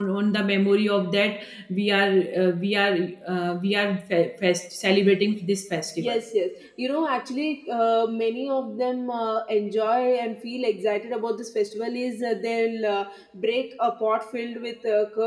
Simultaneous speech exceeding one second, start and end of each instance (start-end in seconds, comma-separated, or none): none